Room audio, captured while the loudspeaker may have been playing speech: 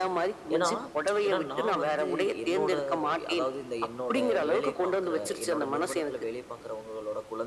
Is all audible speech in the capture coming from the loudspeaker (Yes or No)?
No